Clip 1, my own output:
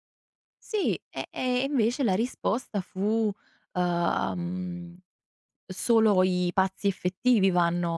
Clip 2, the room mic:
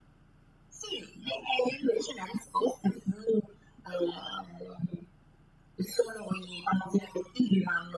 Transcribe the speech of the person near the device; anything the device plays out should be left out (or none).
none